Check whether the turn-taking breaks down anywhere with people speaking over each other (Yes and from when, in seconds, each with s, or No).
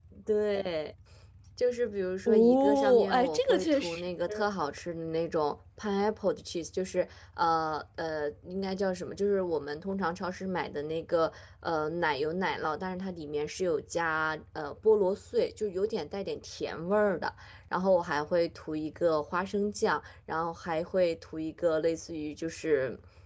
Yes, from 2.3 s